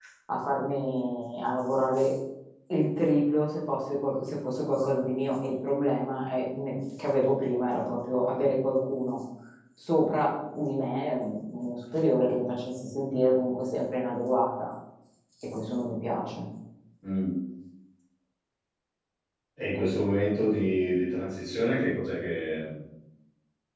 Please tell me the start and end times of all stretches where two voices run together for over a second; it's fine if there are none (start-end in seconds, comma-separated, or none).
none